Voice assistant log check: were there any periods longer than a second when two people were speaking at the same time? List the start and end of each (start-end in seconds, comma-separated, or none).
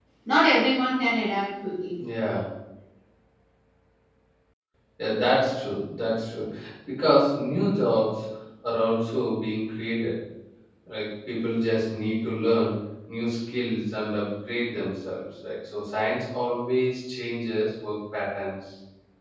none